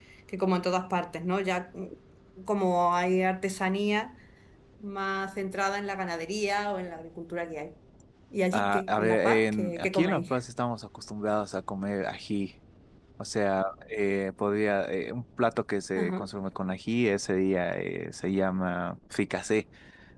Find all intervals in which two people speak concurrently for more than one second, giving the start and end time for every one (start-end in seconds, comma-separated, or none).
8.5-10.3